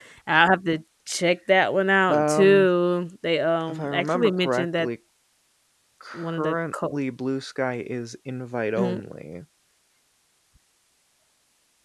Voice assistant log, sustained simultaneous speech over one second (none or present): present